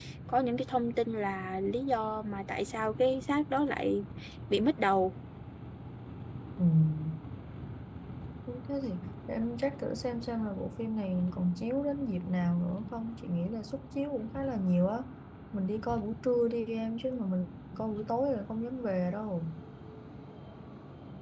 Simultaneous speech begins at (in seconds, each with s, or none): none